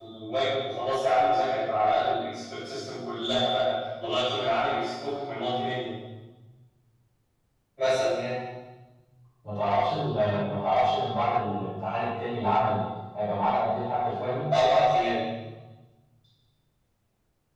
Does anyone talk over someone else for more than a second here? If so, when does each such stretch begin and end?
none

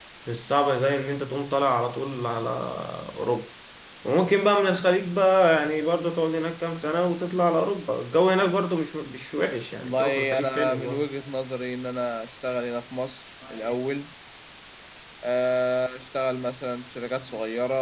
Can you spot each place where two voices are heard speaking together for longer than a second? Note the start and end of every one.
9.8-11.1

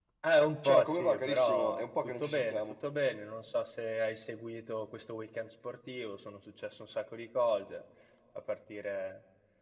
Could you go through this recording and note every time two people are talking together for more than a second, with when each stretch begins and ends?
0.6-2.8

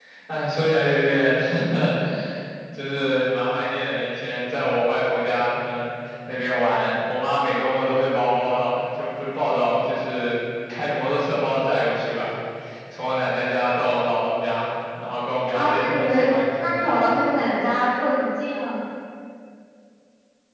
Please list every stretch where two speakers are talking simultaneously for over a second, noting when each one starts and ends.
15.5-16.9

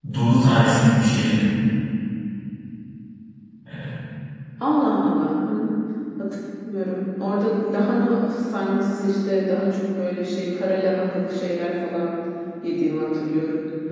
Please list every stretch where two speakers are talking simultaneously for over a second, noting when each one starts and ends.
none

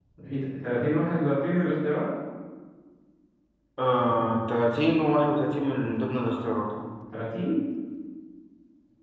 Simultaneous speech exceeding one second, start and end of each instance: none

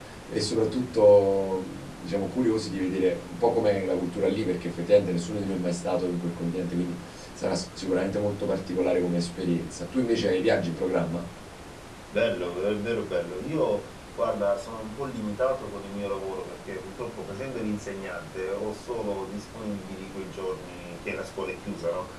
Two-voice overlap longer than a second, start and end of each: none

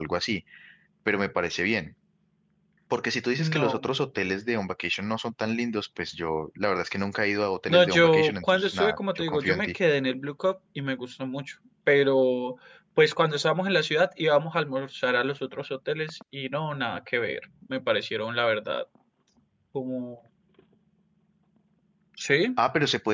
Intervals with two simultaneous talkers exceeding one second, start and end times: 7.7-9.8

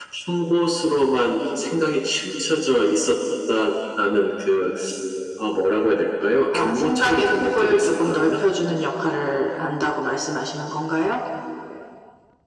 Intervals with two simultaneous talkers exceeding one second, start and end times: 6.5-8.4

